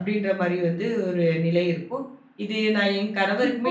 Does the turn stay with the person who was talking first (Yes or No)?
No